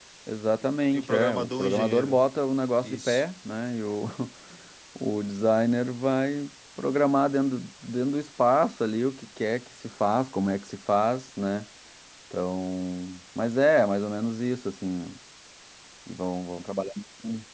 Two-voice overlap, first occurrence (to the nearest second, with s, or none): 1 s